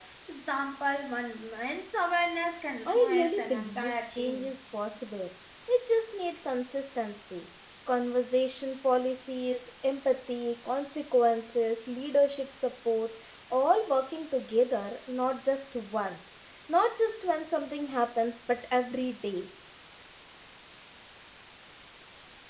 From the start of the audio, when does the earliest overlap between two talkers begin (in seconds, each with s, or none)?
2.9 s